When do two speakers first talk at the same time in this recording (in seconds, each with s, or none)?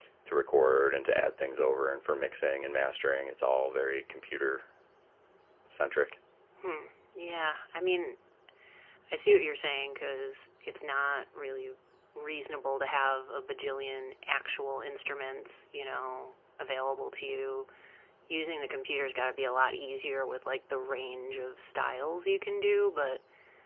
none